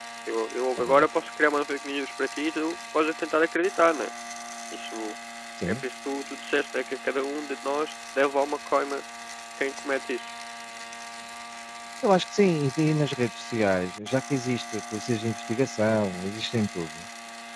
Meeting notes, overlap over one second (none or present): none